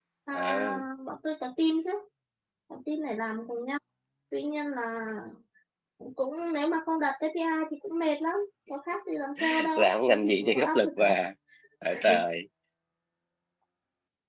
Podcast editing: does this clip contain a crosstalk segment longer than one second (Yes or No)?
Yes